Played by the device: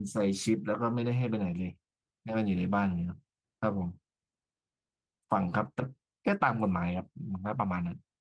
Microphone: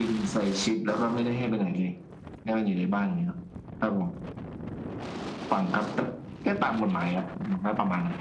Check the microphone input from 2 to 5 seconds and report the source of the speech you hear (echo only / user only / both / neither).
echo only